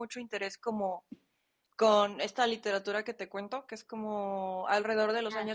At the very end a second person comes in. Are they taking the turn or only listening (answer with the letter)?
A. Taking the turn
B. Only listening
B